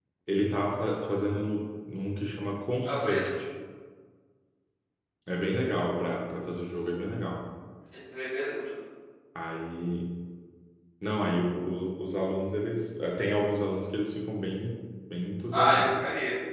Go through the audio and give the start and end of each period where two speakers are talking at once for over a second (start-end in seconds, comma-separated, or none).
none